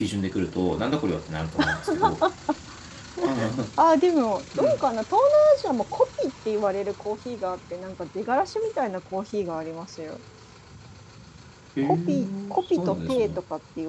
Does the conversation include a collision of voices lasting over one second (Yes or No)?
Yes